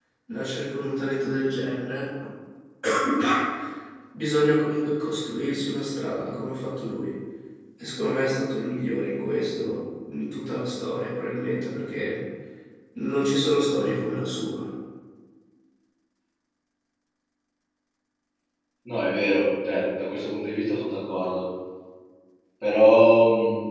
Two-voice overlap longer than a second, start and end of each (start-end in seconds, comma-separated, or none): none